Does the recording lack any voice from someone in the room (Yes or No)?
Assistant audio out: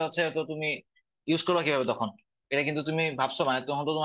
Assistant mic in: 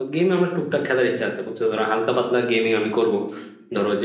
No